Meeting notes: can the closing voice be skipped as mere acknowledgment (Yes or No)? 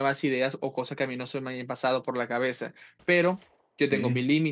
Yes